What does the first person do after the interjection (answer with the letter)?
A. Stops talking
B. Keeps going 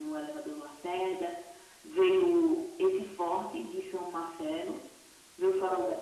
B